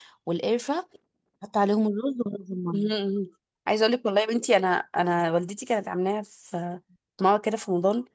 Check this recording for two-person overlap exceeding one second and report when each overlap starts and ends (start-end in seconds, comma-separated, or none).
none